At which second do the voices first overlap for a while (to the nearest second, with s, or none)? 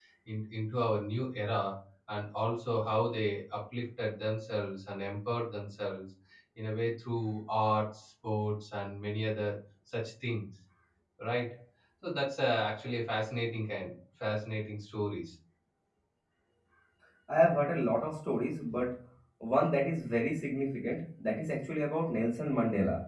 none